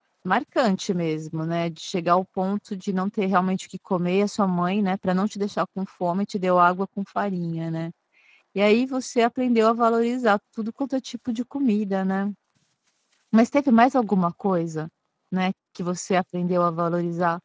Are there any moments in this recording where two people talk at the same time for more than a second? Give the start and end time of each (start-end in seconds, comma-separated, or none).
none